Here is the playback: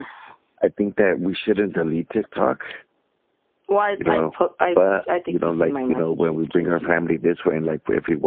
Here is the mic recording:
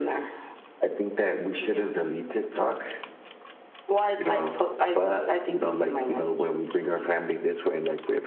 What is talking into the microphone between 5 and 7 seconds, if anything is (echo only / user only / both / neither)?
echo only